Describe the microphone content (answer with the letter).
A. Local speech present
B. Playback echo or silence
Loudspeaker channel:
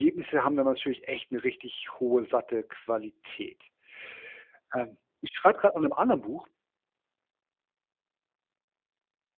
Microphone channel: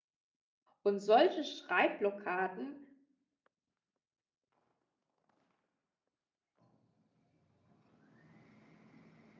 A